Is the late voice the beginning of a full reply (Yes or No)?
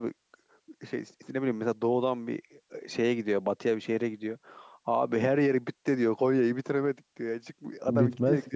No